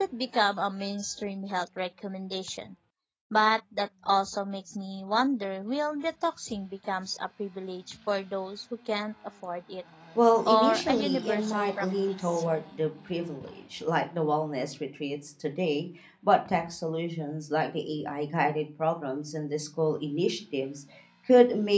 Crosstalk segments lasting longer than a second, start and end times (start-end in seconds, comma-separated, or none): 10.5-12.3